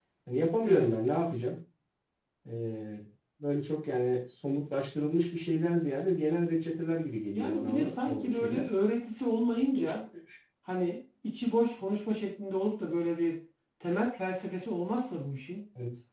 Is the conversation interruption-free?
No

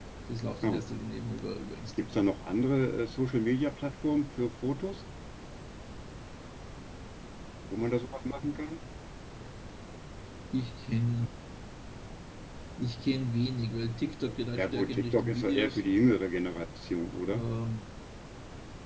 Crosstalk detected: Yes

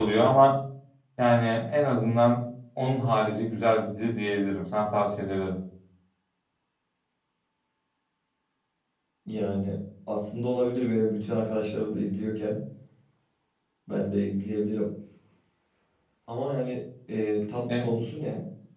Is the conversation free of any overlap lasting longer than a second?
Yes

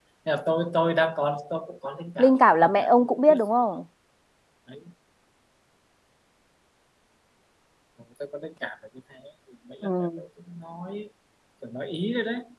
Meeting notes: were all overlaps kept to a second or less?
No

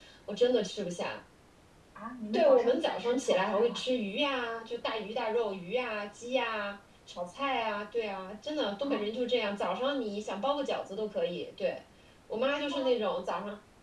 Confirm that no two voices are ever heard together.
No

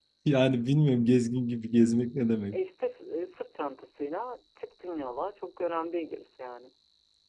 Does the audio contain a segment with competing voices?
No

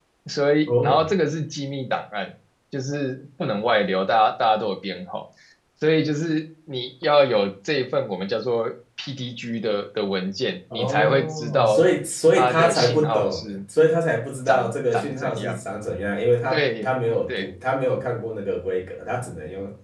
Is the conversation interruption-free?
No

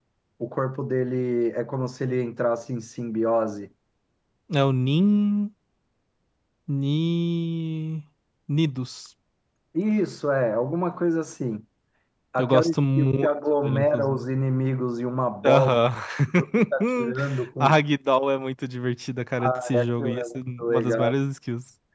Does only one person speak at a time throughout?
No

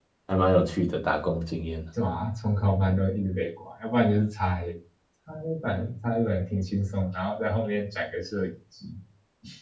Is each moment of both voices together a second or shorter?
Yes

